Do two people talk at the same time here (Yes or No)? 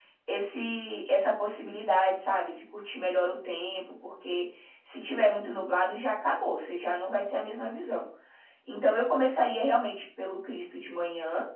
No